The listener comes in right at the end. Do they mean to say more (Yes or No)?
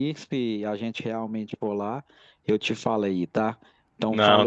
Yes